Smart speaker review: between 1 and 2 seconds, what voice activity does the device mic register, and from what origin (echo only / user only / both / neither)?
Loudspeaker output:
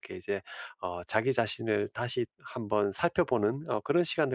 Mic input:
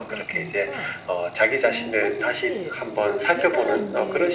both